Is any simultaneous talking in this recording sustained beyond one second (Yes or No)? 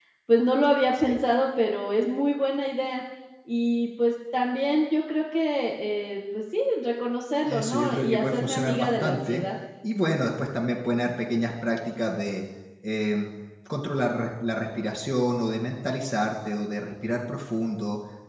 Yes